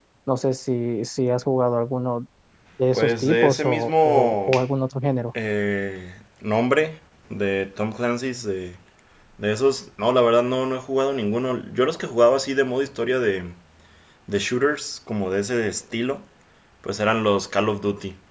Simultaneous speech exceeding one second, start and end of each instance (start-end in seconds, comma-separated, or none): 2.9-4.5